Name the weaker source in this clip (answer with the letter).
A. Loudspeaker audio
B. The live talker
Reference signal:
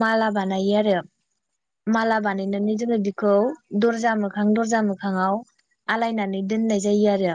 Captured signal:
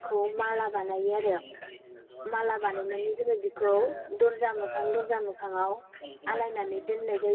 B